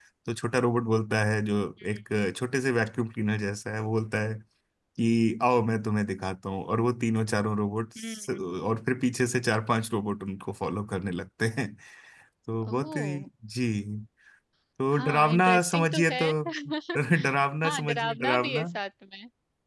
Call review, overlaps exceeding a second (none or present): present